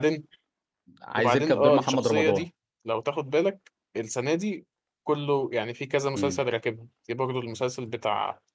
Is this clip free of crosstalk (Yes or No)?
No